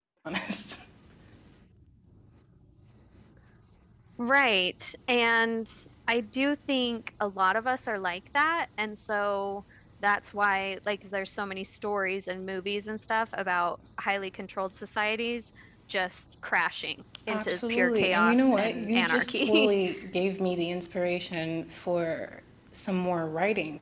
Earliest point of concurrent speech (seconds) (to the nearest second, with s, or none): 17 s